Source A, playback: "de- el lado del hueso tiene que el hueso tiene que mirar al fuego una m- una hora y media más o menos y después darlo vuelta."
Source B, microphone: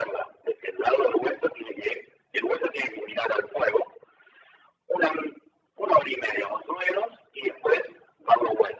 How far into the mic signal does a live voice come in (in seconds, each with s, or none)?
none